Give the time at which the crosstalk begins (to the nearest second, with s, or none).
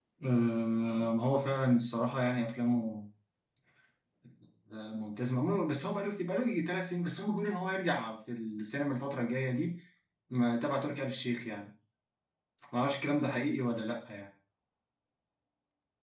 none